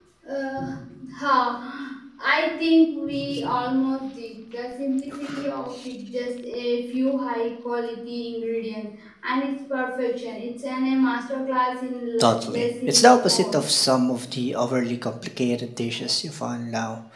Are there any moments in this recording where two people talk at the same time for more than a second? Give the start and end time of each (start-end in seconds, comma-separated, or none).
12.2-13.6